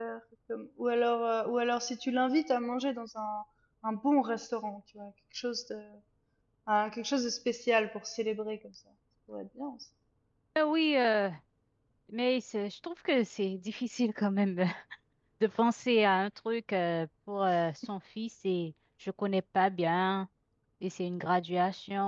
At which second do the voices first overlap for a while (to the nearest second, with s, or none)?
none